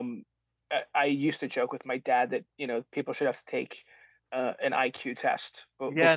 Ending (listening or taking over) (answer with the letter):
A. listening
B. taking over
B